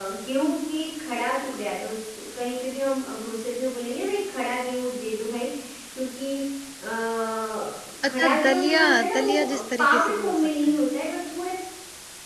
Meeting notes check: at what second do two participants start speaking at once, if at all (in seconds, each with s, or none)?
8.1 s